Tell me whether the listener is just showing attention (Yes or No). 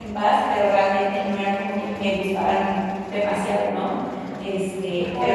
No